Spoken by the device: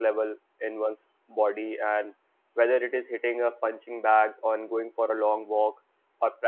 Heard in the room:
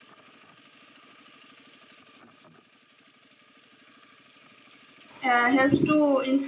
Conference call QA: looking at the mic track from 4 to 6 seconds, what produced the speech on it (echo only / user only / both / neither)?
user only